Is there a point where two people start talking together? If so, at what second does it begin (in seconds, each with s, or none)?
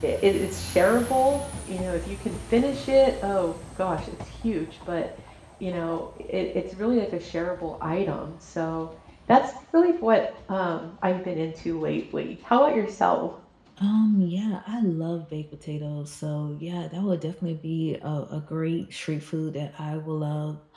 none